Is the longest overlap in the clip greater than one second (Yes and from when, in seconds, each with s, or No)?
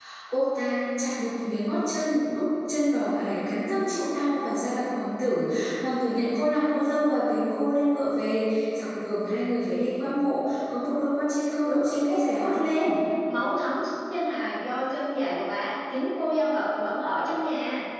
Yes, from 11.6 s